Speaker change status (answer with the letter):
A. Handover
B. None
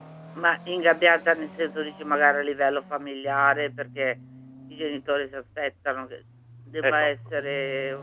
B